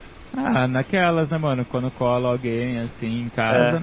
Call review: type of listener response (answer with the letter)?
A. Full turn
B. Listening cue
B